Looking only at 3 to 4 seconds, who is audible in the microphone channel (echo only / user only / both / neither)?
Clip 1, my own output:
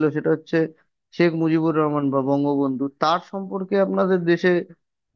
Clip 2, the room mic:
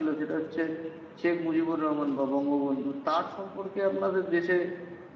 echo only